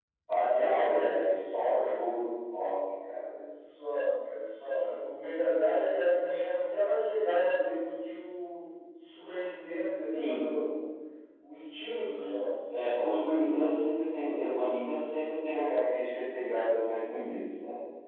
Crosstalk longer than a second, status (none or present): none